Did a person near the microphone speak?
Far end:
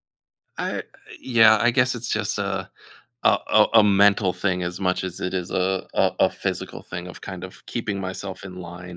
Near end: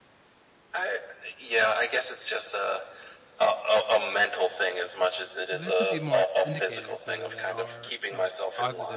Yes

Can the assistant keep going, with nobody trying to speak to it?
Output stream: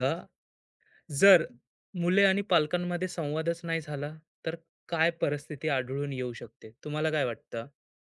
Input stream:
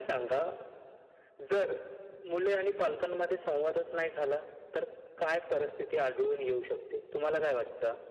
Yes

